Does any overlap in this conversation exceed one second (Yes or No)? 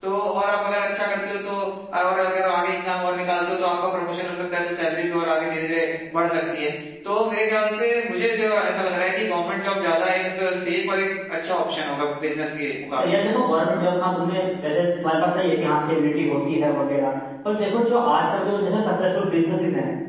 No